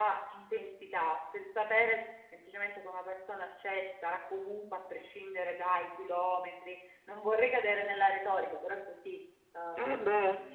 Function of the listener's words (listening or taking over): taking over